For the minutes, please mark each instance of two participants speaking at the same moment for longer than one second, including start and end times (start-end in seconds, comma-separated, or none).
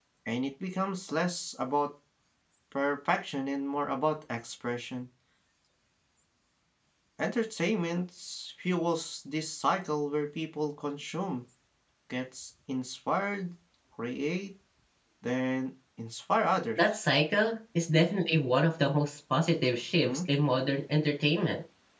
none